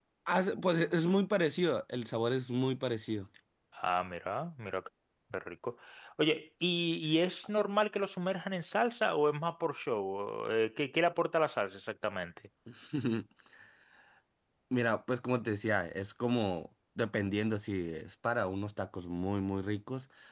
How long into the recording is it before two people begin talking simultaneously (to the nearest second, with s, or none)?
none